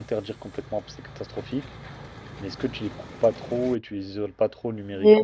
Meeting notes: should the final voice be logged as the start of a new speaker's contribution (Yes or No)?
Yes